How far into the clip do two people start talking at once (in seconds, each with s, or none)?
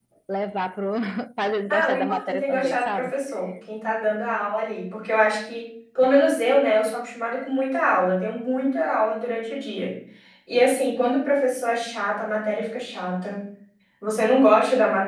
1.7 s